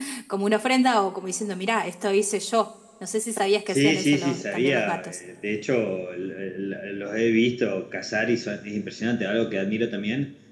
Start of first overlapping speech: 3.7 s

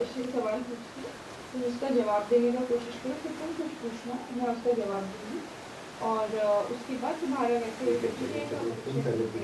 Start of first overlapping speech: 7.8 s

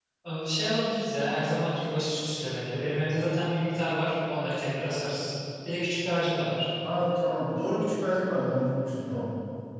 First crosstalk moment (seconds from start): none

